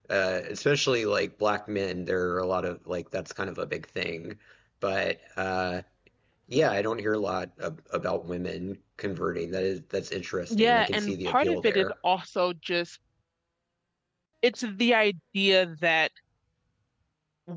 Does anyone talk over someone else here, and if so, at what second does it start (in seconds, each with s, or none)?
10.5 s